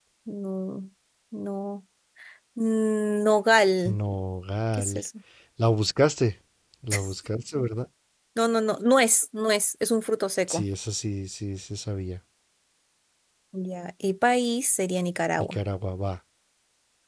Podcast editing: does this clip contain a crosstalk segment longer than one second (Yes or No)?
No